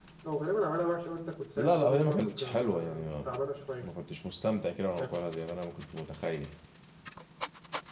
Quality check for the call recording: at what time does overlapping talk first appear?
1.6 s

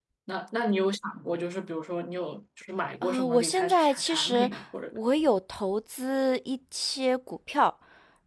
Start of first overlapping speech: 3.0 s

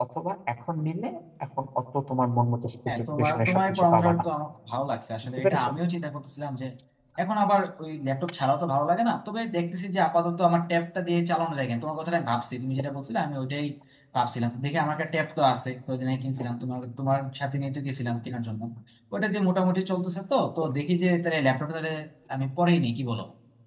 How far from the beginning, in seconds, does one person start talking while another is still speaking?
2.9 s

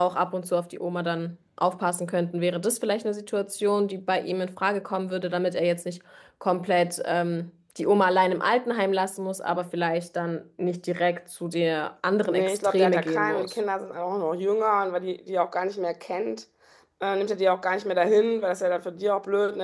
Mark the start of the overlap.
12.3 s

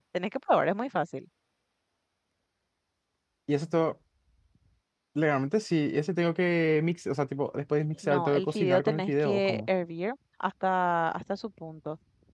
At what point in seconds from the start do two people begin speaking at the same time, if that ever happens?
8.0 s

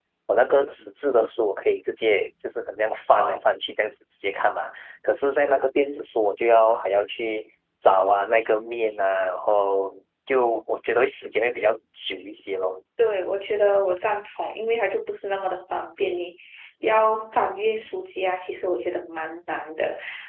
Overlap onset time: none

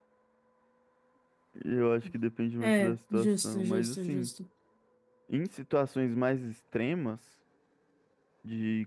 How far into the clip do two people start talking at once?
2.6 s

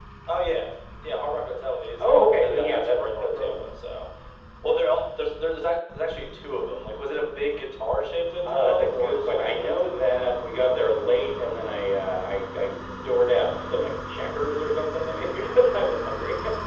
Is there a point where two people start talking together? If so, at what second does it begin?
2.0 s

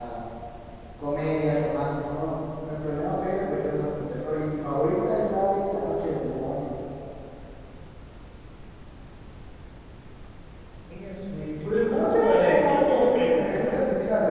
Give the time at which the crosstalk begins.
11.6 s

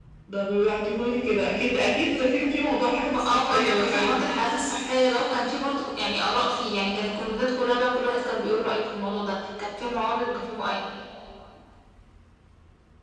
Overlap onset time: 3.1 s

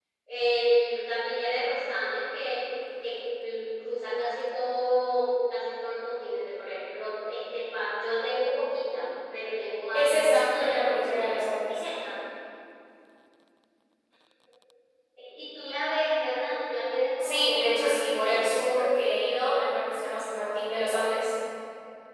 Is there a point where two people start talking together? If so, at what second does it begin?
9.9 s

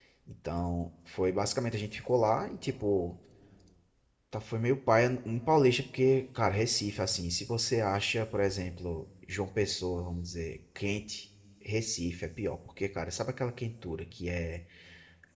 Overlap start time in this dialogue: none

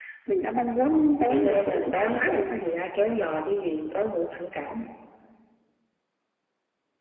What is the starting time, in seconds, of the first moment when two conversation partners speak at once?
1.3 s

